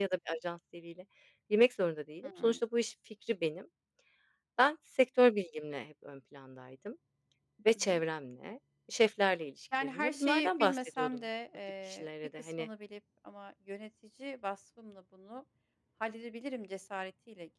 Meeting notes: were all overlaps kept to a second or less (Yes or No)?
No